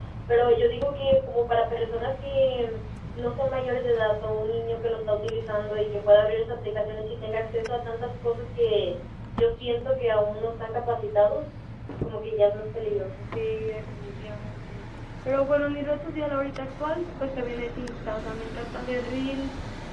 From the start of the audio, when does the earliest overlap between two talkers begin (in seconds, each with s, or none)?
none